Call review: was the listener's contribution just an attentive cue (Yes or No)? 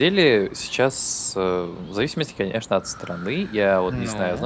Yes